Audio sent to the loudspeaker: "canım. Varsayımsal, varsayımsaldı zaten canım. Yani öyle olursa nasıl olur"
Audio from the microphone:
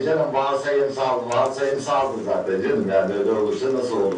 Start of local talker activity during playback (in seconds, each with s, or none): none